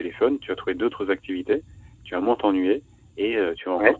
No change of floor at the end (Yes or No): Yes